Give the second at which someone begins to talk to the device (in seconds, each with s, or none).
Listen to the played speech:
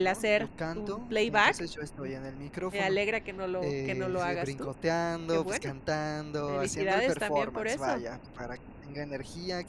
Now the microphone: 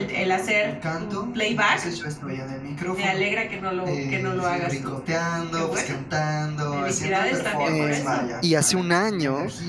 7.6 s